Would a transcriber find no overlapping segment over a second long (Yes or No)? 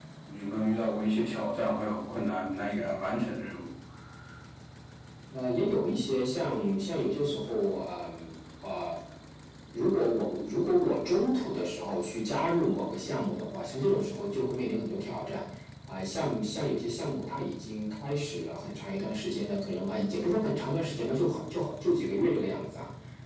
Yes